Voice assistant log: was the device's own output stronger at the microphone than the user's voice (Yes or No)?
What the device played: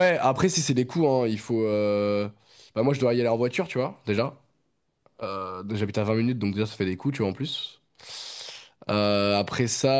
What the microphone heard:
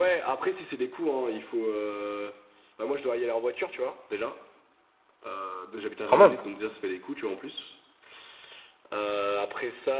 No